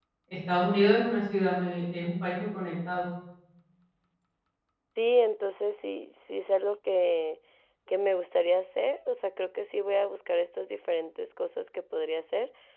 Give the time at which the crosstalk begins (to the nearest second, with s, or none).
none